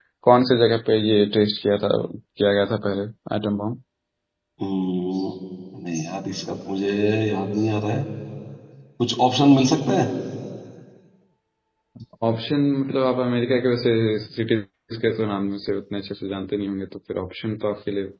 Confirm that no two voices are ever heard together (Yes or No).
Yes